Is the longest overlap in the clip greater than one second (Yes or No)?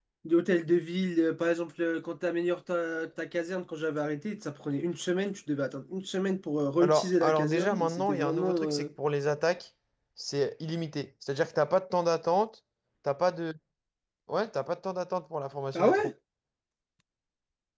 Yes